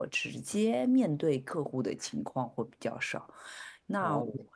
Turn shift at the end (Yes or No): No